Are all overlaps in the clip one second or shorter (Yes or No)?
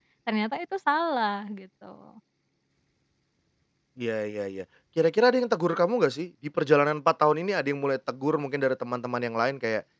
Yes